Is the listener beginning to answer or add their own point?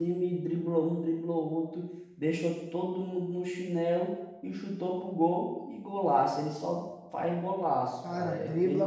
Yes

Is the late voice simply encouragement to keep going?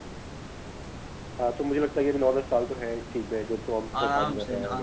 No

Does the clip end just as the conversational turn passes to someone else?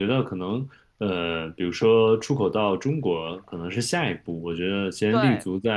No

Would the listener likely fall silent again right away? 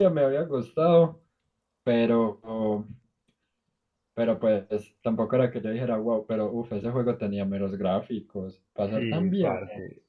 No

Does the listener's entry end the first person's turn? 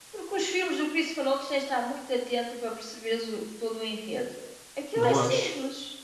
No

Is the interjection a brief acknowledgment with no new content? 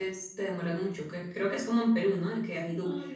Yes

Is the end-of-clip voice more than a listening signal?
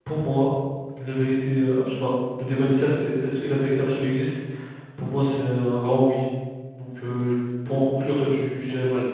Yes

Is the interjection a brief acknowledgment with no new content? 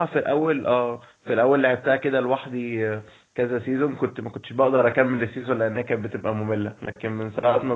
Yes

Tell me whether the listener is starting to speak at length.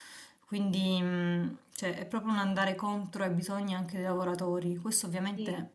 No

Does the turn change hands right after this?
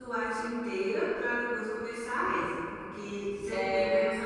No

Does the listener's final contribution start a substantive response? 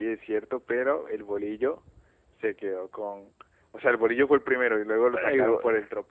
No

